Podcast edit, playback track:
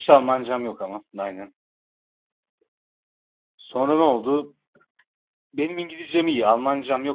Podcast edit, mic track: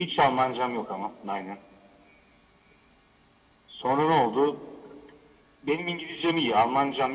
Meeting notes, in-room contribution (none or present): none